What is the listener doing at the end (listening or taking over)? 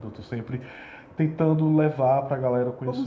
taking over